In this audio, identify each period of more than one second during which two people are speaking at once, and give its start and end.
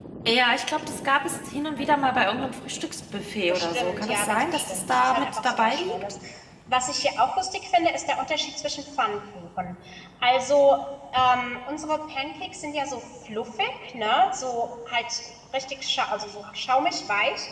3.5-6.0

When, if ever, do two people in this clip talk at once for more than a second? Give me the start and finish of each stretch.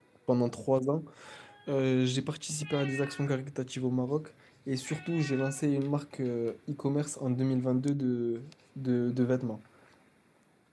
none

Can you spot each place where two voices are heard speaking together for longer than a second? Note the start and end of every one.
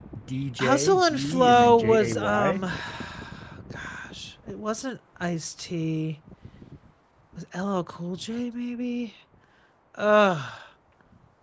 0.6-2.6

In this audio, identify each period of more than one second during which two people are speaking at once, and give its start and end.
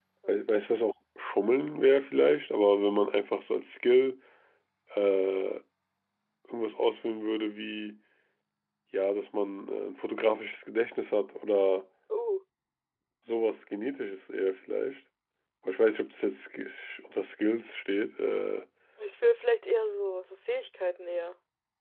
none

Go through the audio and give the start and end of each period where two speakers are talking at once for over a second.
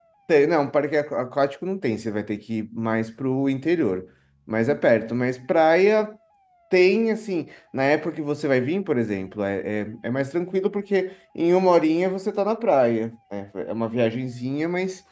none

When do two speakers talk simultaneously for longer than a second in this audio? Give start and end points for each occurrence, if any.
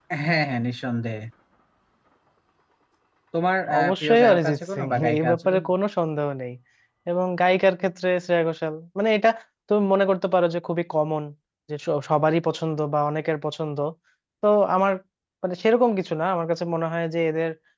3.8-5.6

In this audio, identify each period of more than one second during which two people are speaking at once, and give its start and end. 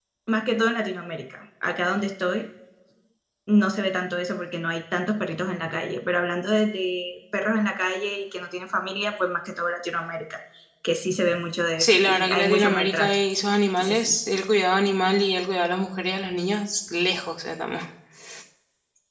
11.8-13.2

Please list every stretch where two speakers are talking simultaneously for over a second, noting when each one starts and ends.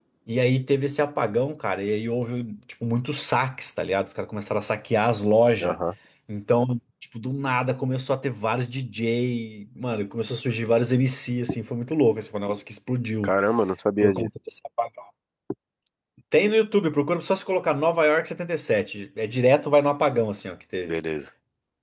none

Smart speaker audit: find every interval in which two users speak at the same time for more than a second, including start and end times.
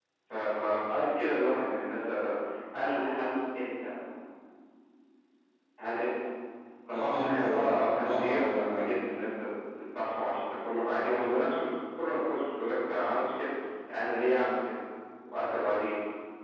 6.9-8.9

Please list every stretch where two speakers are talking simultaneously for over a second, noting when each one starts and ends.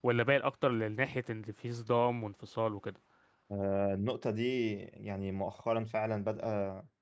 none

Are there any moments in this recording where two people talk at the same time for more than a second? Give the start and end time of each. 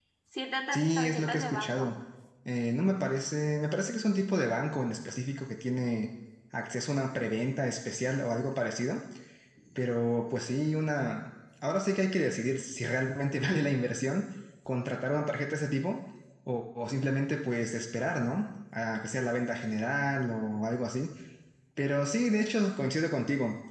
0.7-1.9

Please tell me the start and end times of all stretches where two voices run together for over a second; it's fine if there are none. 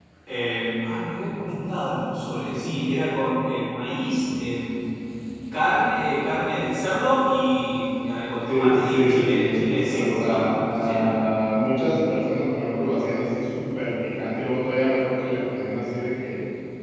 8.5-11.1

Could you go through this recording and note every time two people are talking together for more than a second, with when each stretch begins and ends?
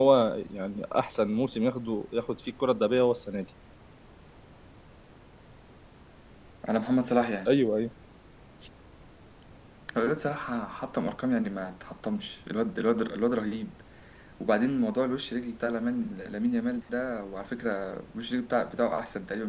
none

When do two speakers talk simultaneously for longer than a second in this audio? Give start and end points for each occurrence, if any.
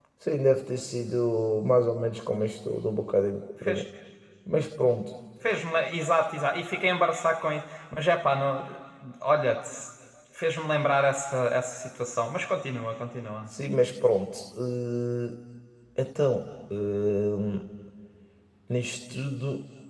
none

